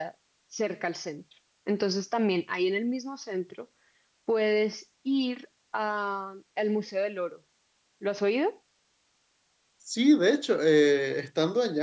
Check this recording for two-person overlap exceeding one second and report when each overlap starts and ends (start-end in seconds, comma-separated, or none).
none